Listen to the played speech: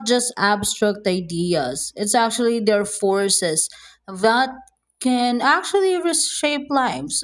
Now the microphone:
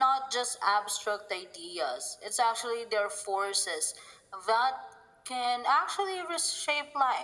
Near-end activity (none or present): none